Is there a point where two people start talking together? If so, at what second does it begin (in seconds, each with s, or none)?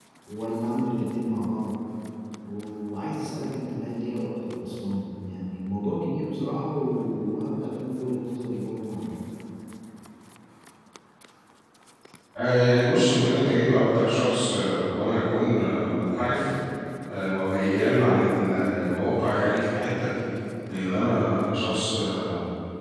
none